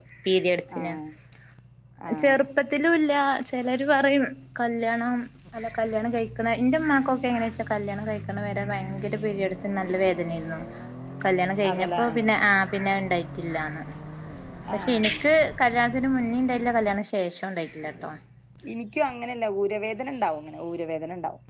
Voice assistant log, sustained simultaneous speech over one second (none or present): none